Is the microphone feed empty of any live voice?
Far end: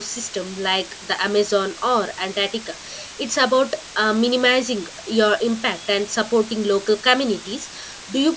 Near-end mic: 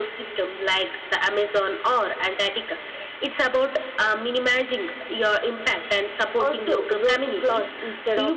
No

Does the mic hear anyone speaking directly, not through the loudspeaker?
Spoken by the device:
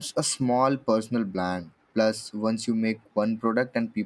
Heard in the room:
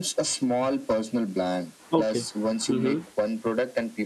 Yes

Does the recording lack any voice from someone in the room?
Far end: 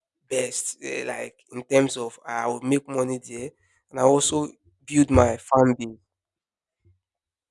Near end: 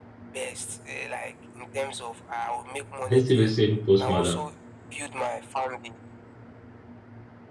No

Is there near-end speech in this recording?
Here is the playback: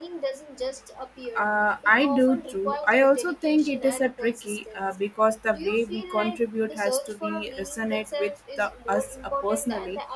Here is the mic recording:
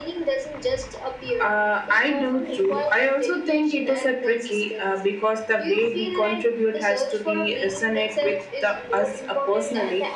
No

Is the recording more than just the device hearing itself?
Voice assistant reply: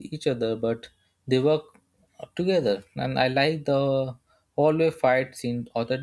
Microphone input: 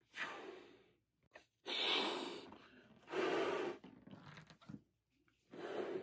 No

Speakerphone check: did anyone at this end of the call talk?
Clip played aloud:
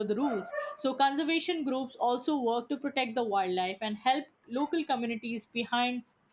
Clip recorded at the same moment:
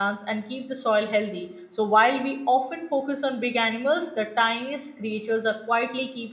Yes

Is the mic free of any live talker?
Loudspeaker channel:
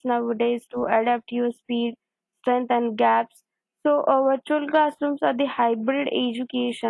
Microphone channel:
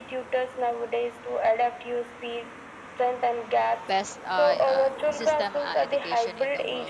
No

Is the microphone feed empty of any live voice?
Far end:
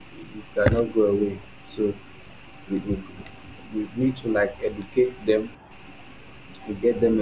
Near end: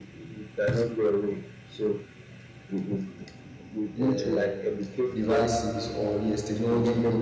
No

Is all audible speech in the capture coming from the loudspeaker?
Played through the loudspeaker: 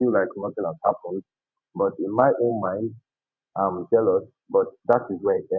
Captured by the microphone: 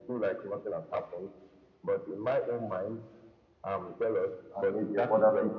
No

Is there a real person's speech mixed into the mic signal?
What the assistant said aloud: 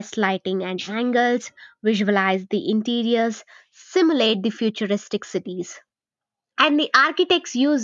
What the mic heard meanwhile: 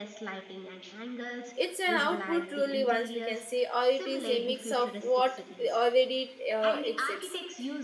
Yes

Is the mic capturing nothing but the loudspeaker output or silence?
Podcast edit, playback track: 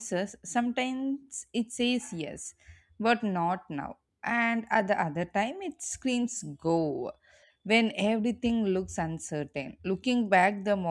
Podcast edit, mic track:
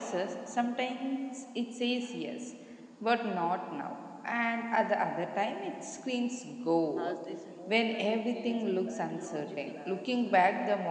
No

